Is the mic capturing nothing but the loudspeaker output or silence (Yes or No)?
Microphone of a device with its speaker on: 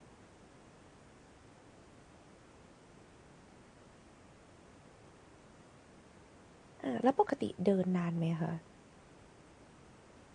No